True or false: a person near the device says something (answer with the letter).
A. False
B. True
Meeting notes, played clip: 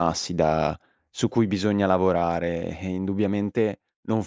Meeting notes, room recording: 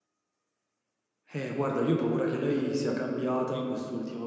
B